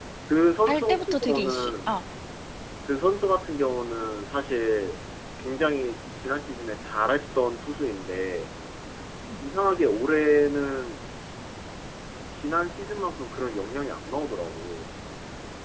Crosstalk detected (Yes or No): Yes